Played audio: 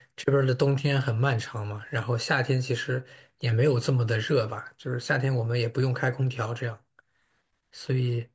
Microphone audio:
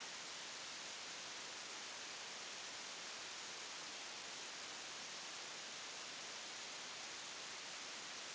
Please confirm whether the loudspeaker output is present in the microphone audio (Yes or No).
No